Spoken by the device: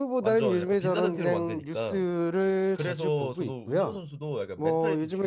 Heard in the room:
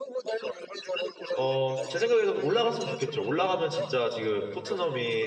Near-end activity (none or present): present